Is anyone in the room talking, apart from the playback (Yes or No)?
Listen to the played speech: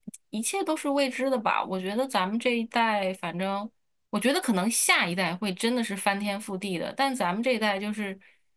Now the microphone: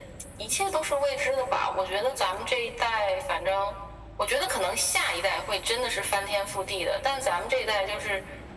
No